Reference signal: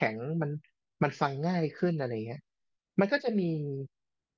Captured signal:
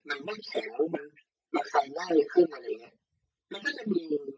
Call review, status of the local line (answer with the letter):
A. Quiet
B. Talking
A